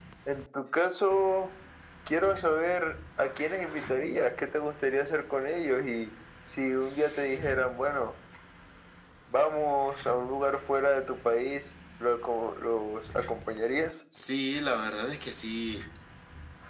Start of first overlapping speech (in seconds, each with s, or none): none